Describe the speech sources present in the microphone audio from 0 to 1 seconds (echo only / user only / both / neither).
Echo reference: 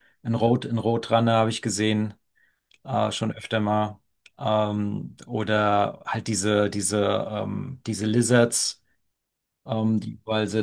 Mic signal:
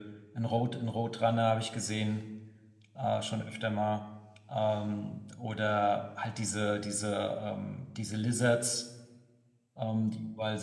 echo only